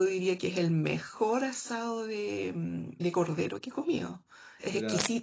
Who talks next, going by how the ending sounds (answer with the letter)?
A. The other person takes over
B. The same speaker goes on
B